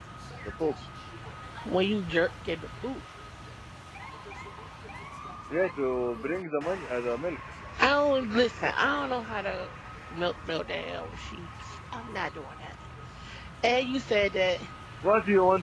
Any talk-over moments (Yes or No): No